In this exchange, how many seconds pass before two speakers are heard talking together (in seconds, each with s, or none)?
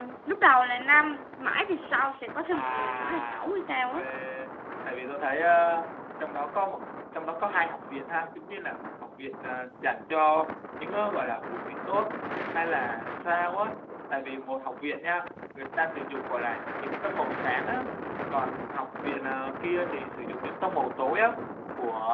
2.5 s